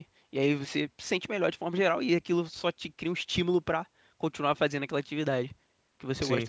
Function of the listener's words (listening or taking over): taking over